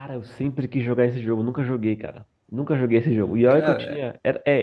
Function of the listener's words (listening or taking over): listening